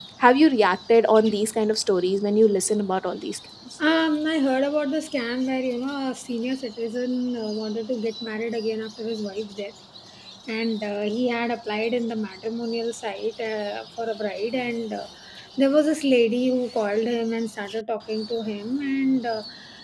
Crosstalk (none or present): none